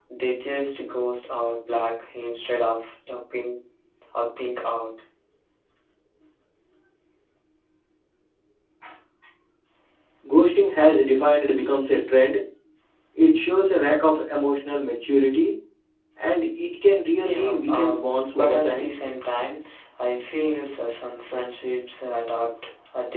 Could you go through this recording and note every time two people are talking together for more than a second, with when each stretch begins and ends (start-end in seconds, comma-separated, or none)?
17.2-18.9